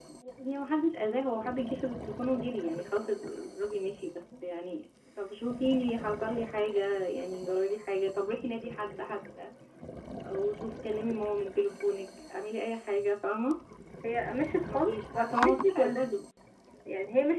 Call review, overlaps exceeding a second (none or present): present